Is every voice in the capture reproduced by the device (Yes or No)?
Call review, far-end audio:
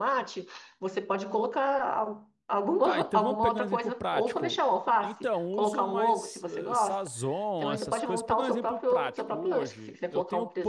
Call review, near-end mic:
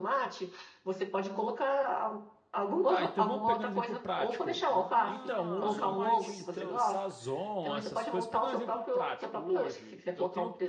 No